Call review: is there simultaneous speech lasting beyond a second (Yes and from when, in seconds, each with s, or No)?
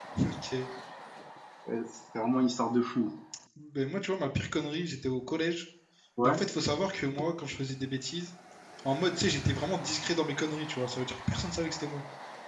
No